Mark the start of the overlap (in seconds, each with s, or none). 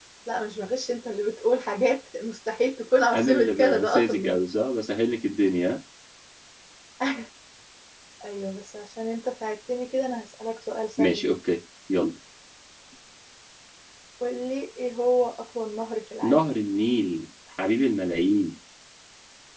3.2 s